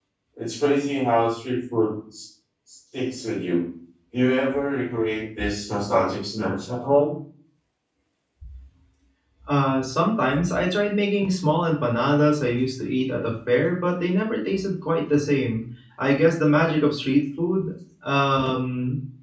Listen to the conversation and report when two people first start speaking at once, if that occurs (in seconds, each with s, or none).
none